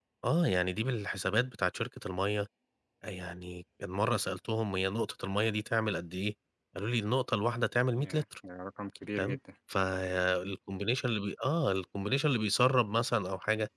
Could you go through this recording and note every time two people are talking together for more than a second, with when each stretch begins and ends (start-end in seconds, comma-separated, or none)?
none